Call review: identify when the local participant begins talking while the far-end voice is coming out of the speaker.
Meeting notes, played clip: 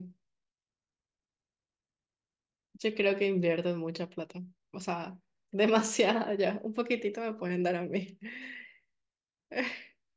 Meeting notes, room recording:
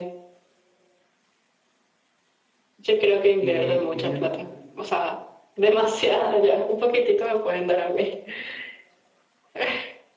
3.4 s

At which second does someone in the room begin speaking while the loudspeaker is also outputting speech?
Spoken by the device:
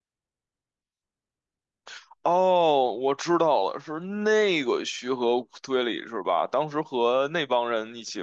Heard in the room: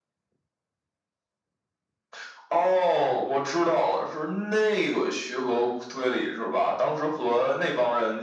none

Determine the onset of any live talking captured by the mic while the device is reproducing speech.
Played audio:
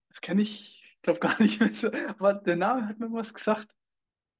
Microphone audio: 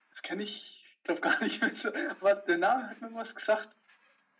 none

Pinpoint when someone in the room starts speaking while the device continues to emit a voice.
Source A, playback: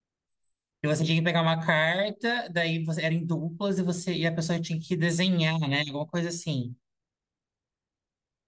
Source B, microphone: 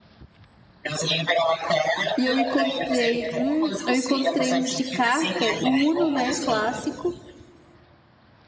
2.2 s

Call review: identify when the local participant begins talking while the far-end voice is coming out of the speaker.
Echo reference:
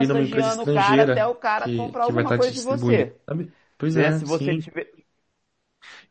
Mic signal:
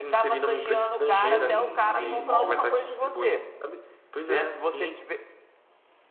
1.2 s

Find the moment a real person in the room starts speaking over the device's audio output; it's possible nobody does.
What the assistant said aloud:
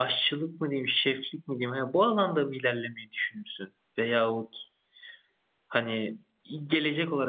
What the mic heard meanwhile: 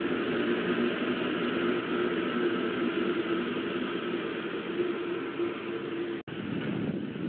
none

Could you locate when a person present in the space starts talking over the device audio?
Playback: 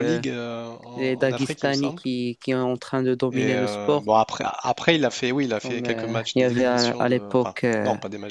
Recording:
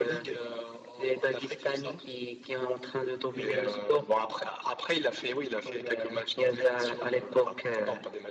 none

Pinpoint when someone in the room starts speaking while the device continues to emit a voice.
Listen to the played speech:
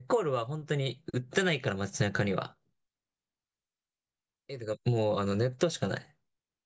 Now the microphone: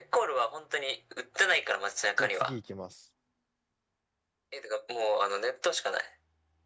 2.1 s

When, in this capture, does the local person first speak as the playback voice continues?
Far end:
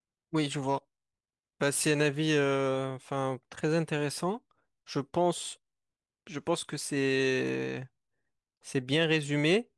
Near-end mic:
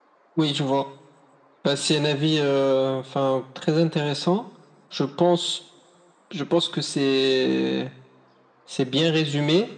none

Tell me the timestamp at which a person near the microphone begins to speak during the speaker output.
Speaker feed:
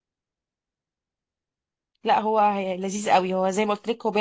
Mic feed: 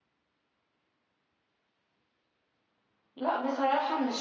3.2 s

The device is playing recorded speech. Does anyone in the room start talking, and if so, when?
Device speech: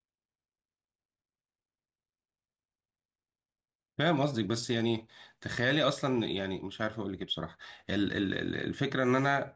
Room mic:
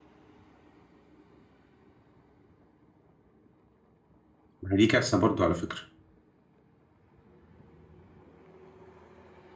4.6 s

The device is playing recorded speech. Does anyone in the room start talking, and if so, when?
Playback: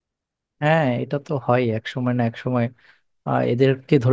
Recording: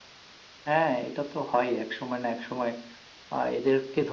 none

